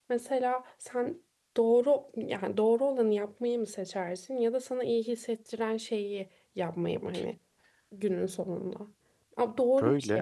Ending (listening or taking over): listening